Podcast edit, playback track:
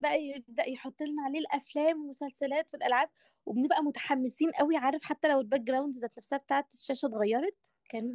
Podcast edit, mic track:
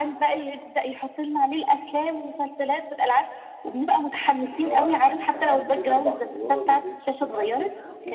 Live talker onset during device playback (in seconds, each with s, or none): 4.5 s